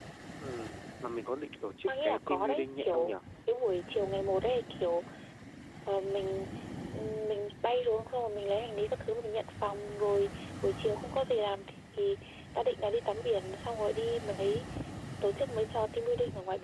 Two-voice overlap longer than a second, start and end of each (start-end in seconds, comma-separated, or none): 1.9-3.1